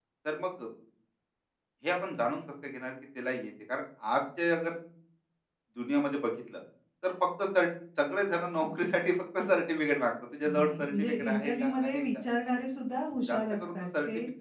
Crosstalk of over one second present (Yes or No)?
Yes